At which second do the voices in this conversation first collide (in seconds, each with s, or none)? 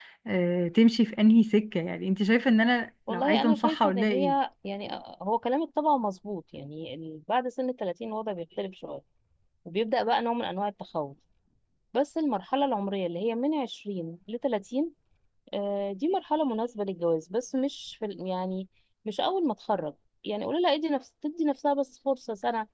3.1 s